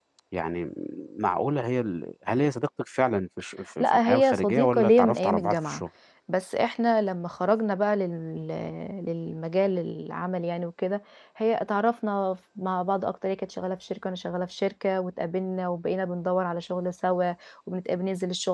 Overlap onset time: 4 s

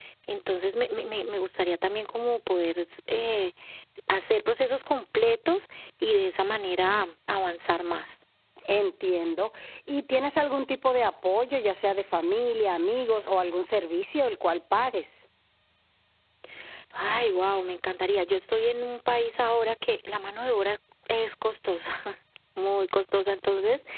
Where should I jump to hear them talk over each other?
none

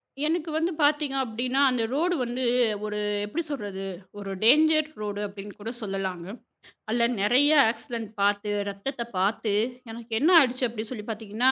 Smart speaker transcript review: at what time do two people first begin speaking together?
none

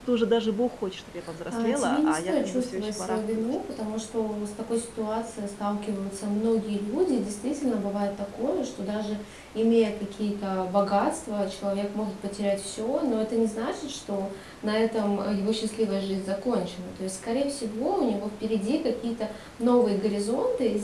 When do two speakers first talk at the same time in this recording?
2 s

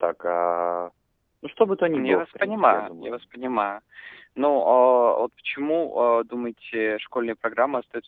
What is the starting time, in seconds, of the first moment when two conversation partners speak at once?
2 s

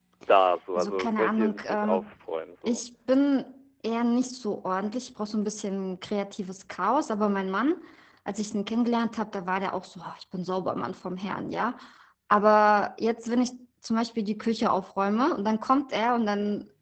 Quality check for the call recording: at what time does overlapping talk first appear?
1 s

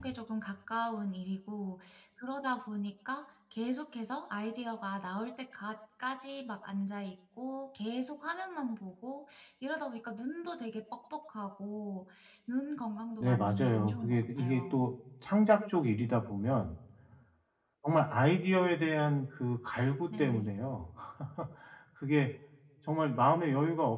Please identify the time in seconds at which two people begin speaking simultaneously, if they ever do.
13 s

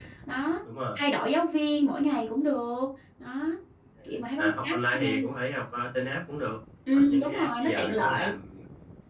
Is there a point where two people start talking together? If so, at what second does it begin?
4 s

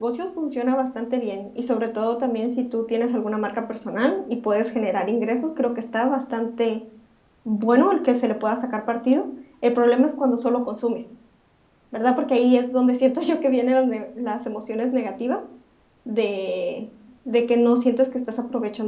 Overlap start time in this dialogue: none

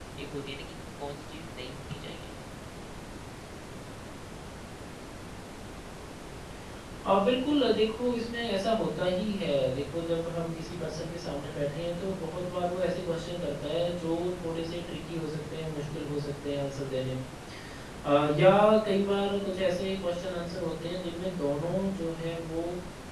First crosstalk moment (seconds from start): none

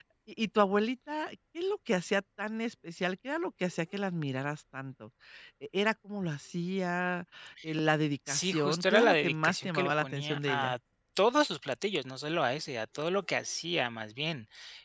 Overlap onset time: 8 s

